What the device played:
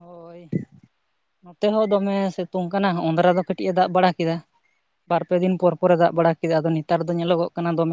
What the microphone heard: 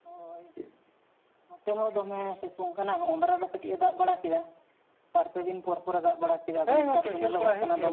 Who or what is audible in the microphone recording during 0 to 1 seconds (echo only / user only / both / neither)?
echo only